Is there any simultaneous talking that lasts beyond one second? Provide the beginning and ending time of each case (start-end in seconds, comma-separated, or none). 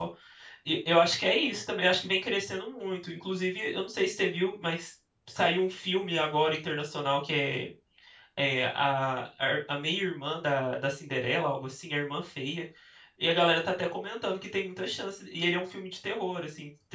none